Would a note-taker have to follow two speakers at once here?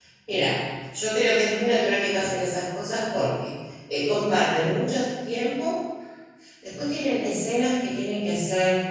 No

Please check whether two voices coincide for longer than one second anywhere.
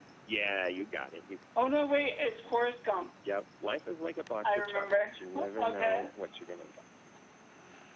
Yes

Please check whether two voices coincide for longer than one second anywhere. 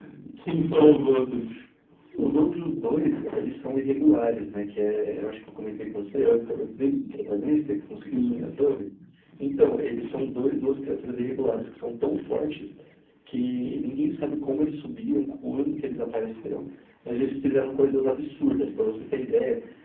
No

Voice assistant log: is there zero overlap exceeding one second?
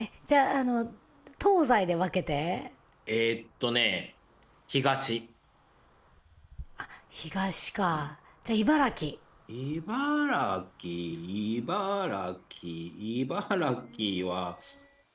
Yes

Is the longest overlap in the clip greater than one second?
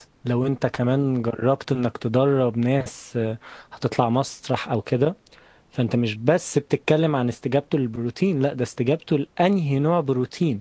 No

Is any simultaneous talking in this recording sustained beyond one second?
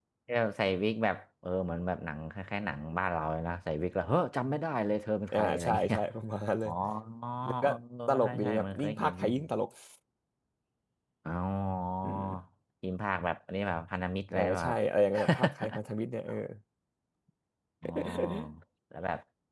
Yes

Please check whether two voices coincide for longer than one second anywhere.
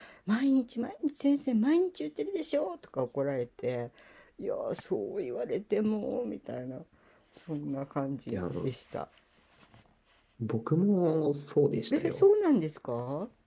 No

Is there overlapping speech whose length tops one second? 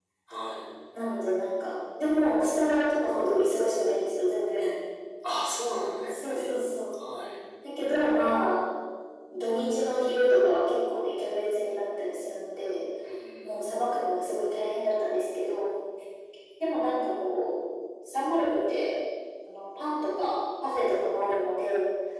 No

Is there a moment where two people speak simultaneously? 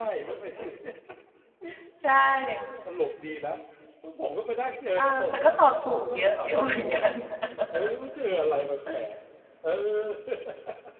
Yes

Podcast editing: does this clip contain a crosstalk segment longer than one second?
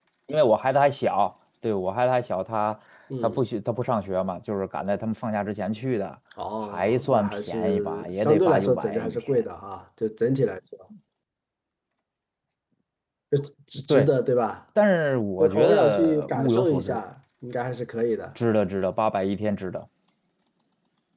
Yes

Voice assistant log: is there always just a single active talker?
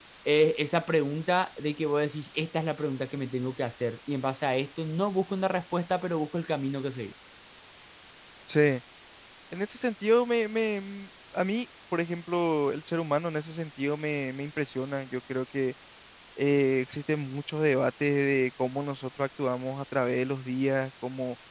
Yes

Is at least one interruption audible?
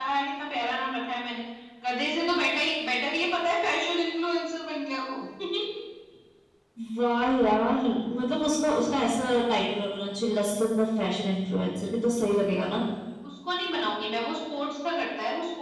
No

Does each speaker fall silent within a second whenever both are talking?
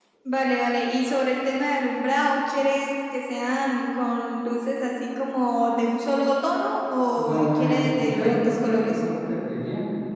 No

